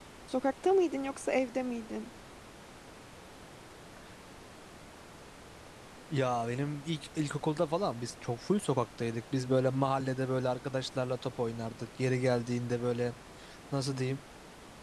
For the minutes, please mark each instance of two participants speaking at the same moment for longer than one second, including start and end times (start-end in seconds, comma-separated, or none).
none